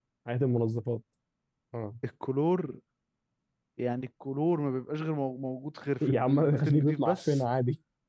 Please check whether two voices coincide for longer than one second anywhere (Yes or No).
Yes